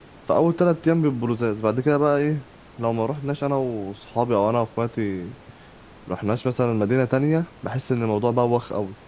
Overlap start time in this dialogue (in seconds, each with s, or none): none